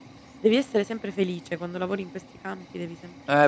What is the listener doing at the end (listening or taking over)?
taking over